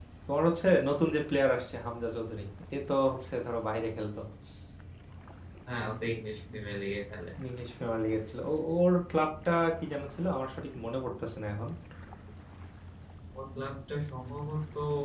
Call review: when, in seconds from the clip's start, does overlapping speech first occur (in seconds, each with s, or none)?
none